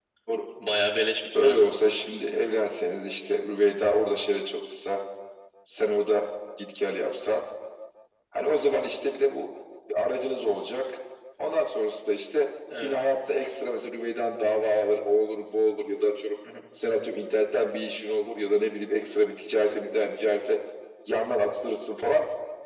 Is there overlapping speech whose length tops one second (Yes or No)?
No